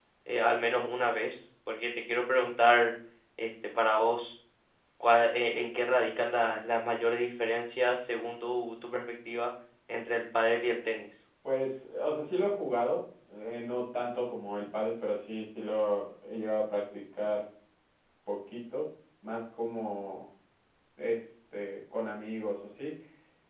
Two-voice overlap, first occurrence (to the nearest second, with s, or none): none